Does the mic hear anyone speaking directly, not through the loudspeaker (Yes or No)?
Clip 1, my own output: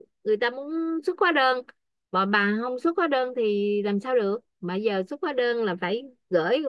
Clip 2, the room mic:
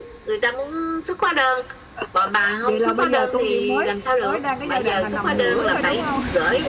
Yes